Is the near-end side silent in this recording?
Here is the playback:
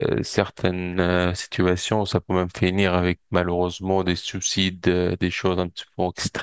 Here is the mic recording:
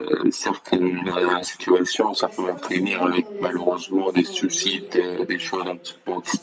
No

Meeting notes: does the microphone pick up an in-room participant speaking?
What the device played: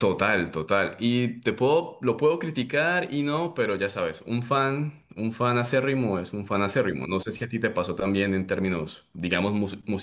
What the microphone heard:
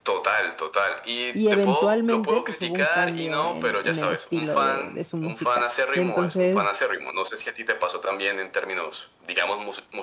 Yes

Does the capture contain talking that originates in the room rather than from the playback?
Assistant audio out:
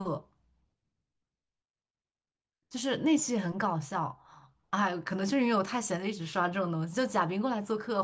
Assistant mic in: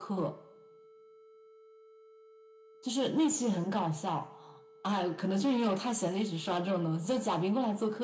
No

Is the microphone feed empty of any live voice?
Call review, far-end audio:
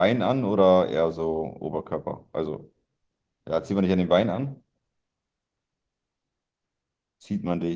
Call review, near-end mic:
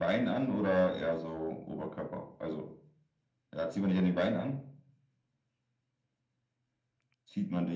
Yes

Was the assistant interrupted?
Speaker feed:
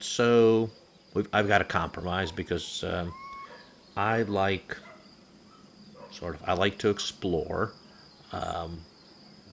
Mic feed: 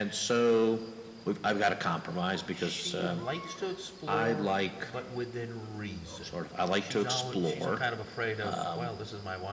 Yes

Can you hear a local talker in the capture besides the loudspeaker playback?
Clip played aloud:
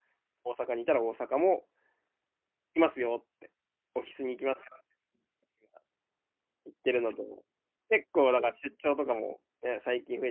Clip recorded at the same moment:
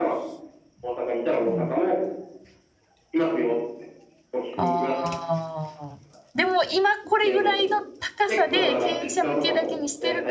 Yes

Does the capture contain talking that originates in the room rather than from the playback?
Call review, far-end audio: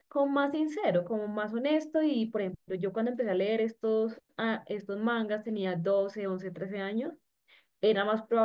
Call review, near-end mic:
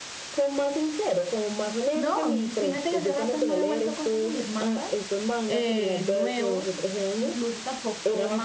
Yes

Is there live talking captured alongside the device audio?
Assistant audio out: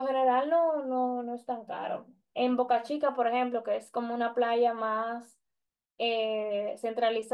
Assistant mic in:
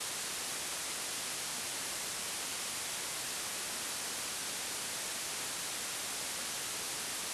No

